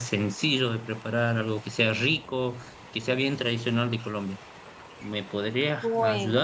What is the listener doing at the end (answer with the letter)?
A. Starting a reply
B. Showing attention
A